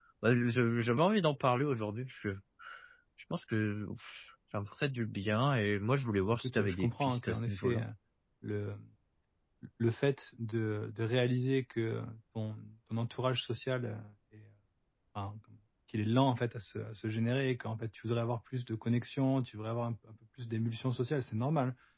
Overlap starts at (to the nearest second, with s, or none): 6 s